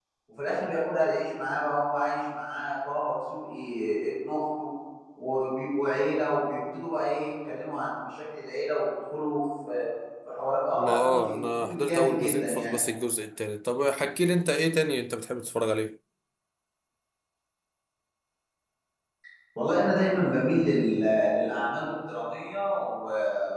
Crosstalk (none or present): present